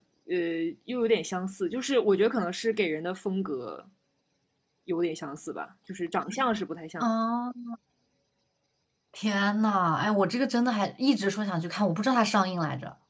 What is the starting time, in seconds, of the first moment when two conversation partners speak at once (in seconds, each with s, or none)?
none